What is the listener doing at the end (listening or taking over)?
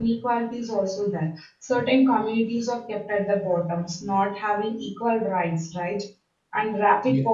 listening